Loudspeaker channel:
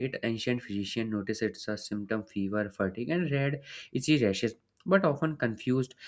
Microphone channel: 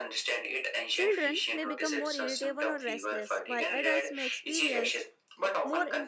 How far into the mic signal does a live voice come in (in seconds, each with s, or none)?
0.9 s